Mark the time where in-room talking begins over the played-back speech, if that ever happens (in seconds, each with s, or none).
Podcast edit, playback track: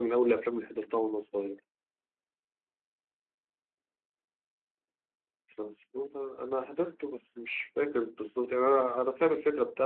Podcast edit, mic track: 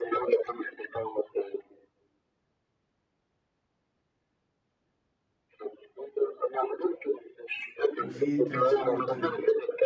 8.0 s